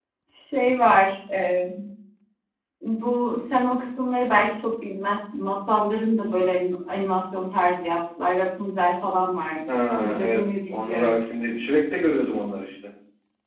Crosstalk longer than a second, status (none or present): present